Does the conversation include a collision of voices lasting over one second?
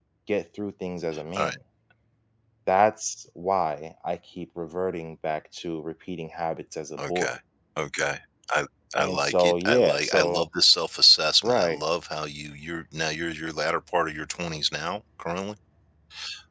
Yes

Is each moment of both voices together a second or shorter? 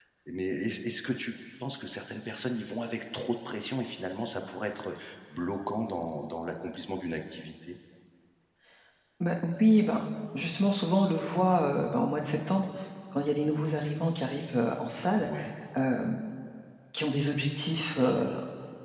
Yes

